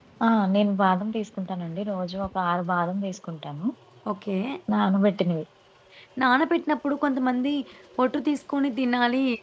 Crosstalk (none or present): none